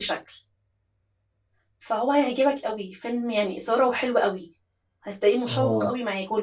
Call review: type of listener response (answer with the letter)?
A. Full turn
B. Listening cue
B